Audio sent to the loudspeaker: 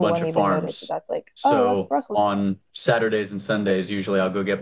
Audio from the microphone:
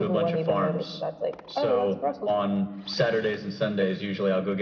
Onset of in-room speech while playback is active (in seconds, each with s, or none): none